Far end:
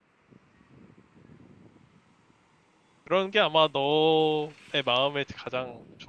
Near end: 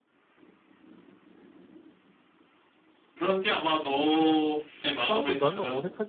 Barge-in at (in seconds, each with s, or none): 5.0 s